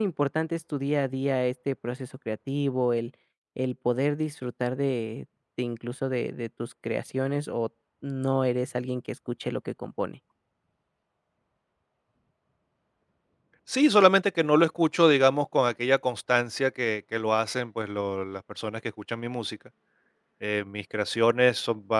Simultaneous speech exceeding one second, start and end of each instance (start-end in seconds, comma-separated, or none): none